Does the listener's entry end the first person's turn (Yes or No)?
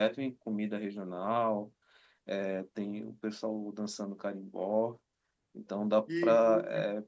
Yes